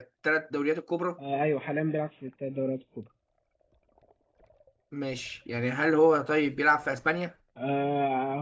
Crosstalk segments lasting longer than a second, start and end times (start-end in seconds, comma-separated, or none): none